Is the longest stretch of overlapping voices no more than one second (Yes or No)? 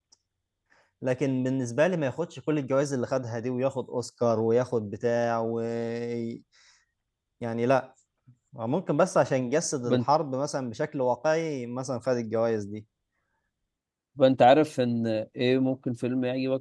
Yes